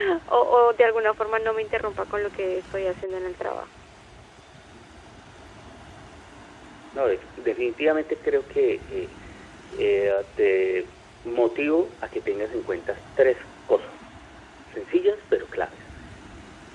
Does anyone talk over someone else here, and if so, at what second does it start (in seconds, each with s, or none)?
none